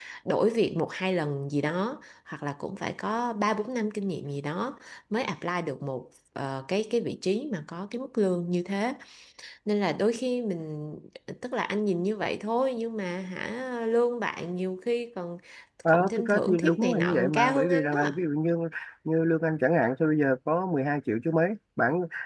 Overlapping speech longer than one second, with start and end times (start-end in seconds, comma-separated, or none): 15.9-18.0